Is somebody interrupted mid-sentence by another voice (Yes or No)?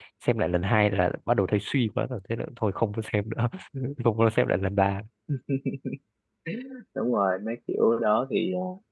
No